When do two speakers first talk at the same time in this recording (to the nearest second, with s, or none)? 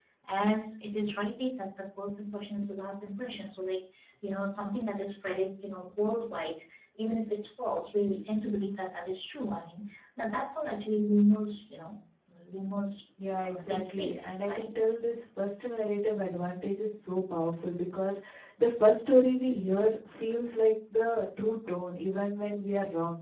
13 s